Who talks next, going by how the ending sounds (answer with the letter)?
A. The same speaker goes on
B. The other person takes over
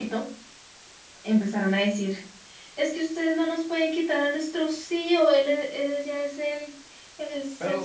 B